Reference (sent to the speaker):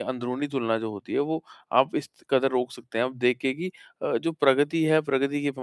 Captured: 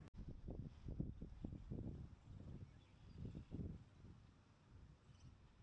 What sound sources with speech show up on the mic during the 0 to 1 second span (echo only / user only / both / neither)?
neither